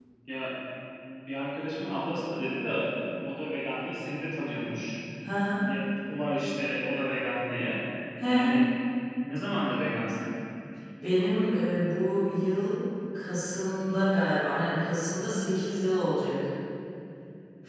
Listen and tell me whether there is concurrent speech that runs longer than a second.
No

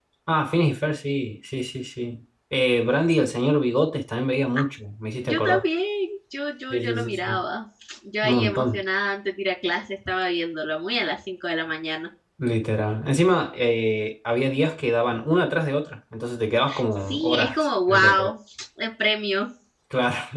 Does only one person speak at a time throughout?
No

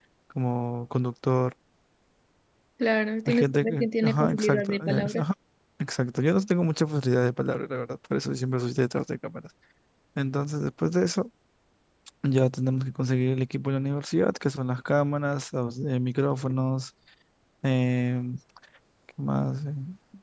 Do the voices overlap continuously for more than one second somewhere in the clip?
Yes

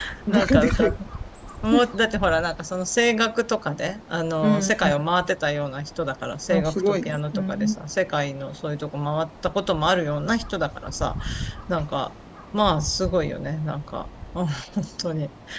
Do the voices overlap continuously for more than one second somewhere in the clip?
Yes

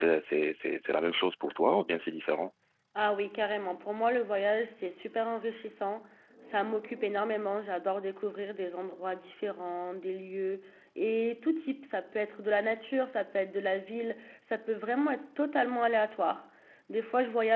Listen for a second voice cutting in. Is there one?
No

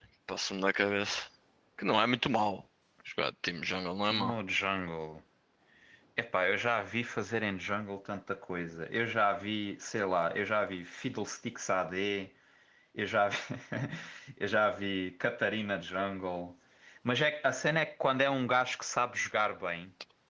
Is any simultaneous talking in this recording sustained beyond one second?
No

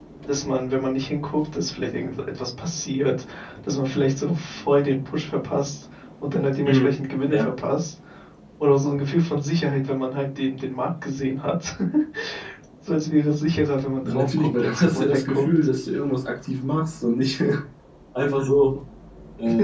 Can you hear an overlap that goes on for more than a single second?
Yes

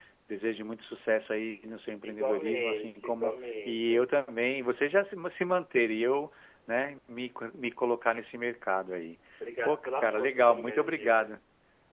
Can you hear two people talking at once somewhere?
Yes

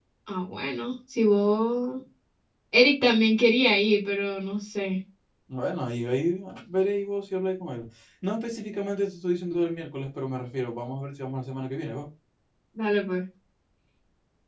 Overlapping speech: No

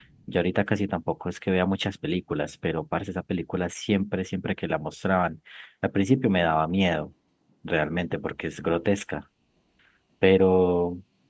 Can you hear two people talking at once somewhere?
No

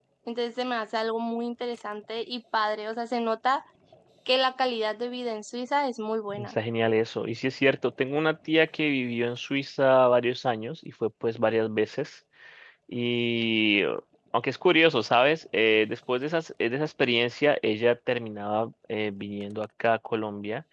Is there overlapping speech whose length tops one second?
No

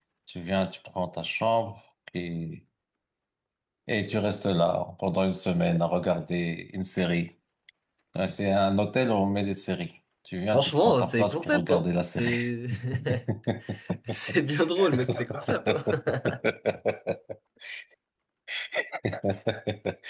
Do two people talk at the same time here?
Yes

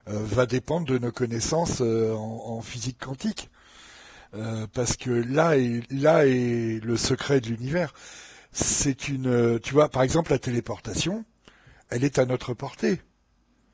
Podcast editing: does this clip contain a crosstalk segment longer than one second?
No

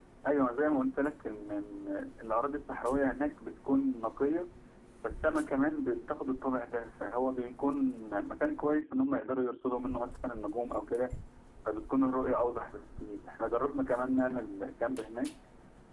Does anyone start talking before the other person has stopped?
No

